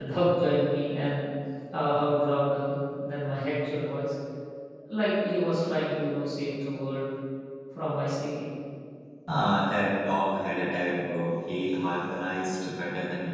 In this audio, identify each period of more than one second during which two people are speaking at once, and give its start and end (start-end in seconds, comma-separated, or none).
none